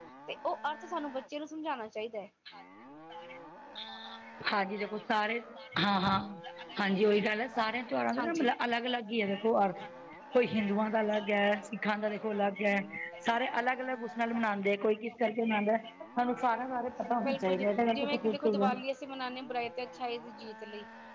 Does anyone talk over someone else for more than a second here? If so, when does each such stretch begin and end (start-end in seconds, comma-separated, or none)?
17.2-18.7